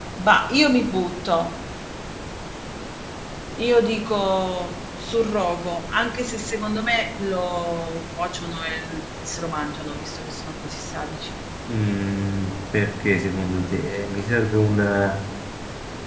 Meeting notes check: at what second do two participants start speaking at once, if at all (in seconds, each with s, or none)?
none